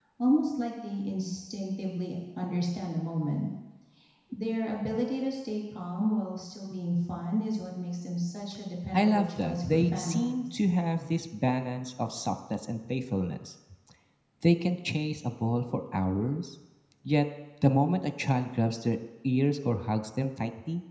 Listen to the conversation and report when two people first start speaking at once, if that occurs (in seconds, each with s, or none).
8.9 s